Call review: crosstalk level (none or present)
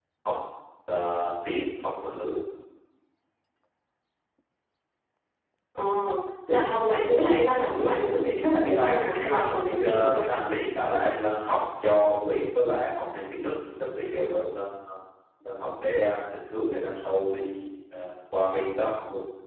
present